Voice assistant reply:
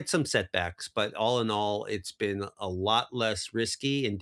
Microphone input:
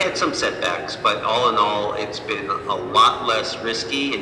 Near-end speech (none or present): none